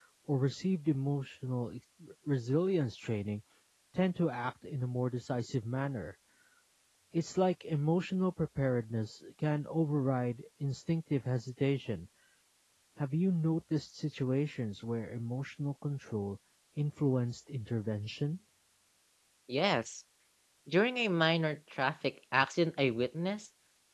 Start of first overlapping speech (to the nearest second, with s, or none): none